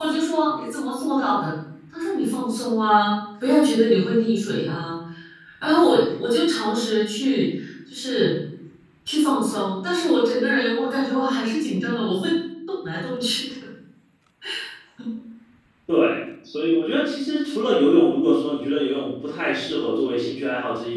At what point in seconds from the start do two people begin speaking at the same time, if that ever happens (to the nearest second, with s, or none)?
none